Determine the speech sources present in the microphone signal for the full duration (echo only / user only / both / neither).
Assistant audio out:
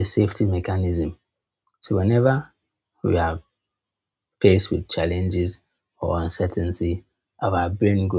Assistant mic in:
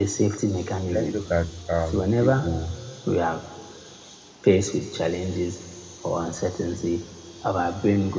both